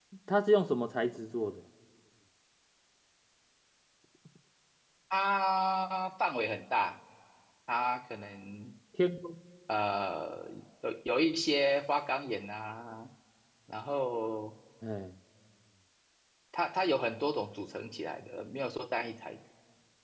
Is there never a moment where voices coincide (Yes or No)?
Yes